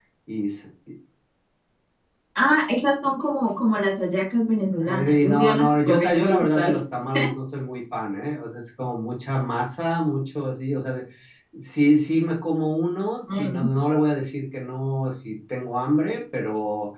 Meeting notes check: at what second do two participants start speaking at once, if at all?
5.0 s

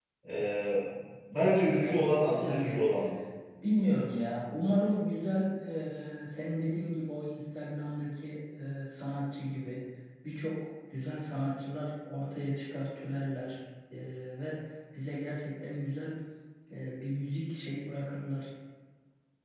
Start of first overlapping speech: 1.4 s

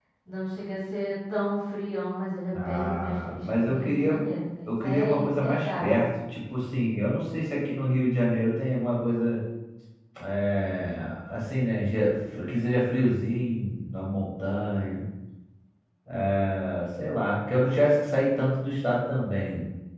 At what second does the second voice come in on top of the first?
2.5 s

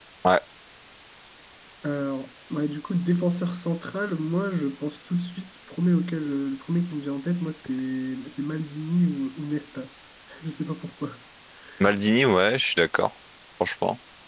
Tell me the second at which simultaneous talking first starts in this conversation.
none

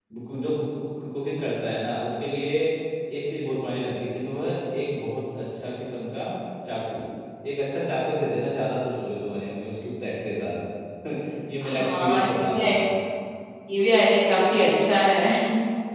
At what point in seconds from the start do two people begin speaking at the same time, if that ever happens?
11.6 s

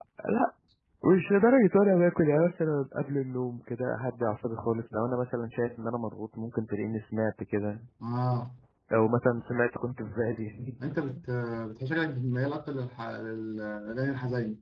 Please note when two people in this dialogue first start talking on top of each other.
none

